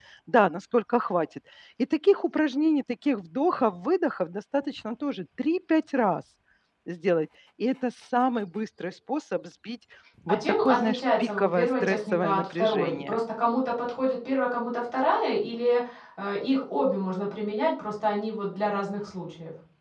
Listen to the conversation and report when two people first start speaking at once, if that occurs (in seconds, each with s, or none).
10.3 s